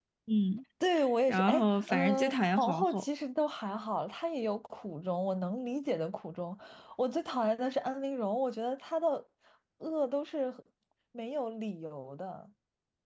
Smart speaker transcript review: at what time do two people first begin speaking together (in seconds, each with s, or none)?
1.3 s